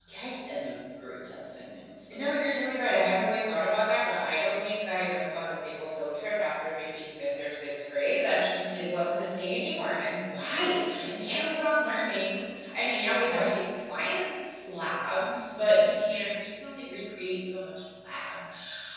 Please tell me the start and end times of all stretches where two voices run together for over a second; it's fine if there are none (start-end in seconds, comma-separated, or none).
none